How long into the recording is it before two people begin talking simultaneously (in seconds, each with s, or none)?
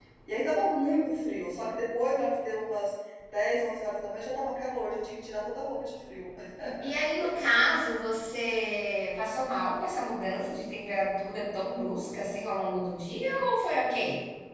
none